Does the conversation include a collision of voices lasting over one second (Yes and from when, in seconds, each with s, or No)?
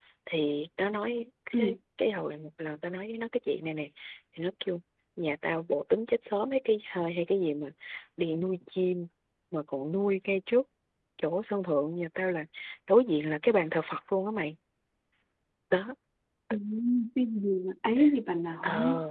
No